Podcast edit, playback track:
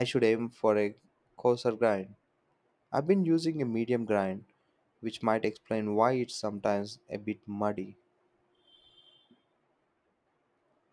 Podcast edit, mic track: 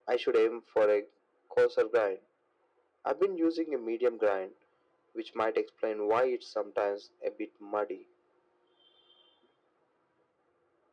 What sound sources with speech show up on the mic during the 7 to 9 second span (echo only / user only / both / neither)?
echo only